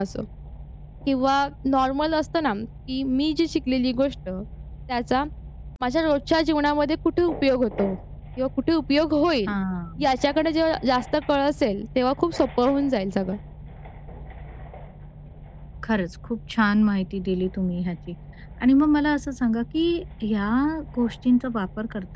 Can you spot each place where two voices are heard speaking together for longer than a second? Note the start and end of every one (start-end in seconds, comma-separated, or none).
none